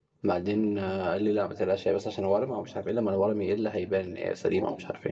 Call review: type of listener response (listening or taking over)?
taking over